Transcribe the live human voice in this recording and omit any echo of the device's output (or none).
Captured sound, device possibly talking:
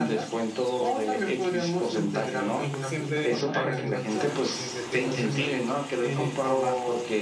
Eh, siempre hay que motivarlos o incentivarlos con algún,